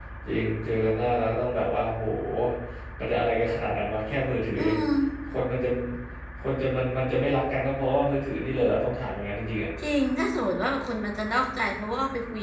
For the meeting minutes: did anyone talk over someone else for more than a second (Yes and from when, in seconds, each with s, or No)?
No